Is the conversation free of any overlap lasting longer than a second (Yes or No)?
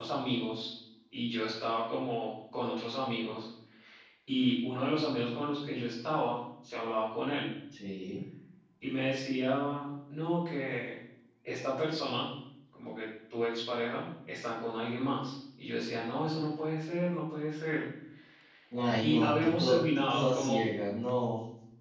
No